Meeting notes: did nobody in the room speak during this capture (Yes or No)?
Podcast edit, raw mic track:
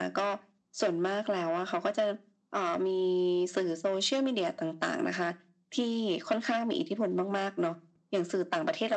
Yes